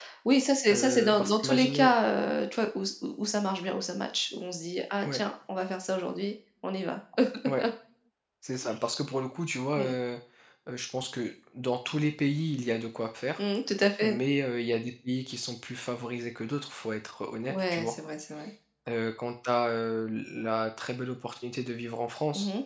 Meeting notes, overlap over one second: present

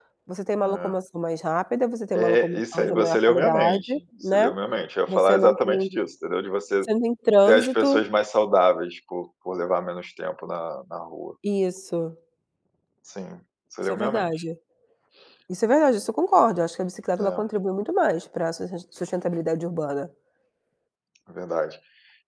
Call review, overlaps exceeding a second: present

